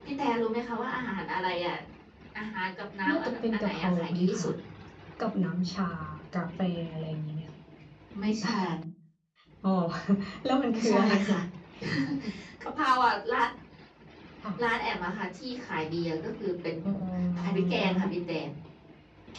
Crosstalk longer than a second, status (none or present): present